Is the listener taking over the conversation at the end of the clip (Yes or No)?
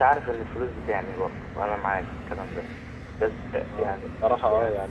Yes